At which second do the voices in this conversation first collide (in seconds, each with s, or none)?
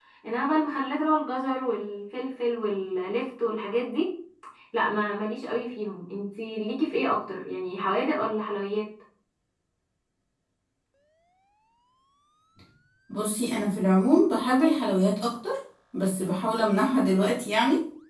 none